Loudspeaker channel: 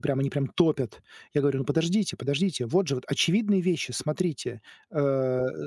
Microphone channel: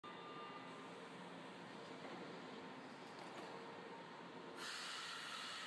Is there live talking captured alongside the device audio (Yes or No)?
No